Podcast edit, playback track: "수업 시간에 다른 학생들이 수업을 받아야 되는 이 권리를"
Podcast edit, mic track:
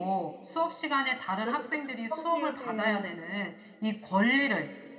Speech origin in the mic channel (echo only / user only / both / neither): both